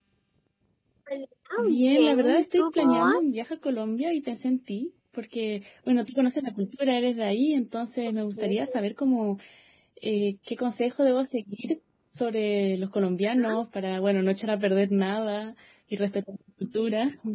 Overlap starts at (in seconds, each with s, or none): 1.8 s